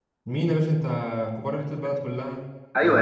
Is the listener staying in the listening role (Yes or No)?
No